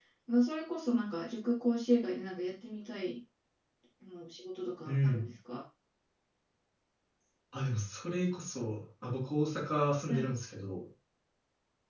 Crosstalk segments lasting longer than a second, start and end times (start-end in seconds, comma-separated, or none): none